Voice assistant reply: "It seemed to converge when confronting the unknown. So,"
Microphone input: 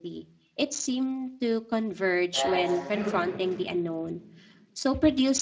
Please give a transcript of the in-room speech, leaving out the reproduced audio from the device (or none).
That's true.